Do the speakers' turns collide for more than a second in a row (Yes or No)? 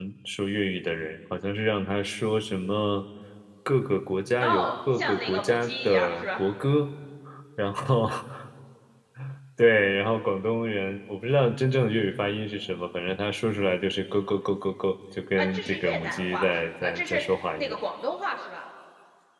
Yes